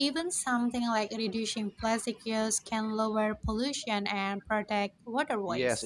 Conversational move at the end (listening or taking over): taking over